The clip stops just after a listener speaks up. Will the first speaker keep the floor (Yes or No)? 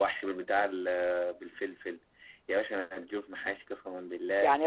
No